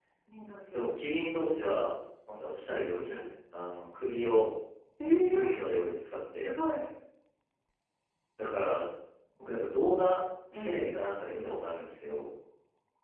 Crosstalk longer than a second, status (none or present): none